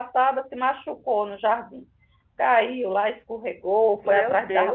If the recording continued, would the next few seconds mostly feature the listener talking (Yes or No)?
No